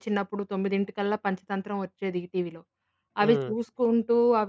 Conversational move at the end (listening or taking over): listening